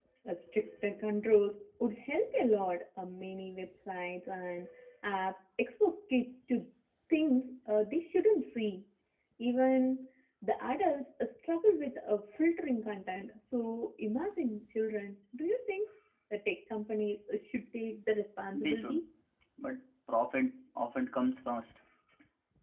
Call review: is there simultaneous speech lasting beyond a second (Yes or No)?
No